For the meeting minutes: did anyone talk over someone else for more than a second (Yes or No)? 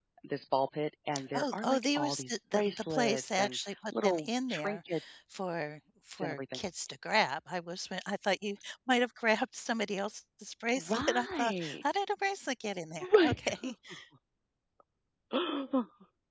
Yes